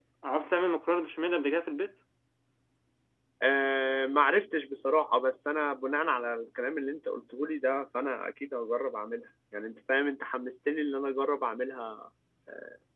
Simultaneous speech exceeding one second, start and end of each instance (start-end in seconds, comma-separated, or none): none